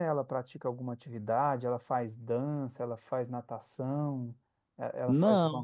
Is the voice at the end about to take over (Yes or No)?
No